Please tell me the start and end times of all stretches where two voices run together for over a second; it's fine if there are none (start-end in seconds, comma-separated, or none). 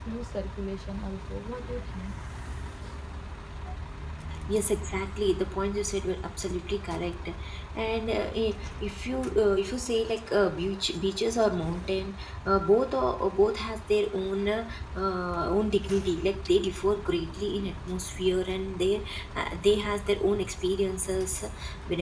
none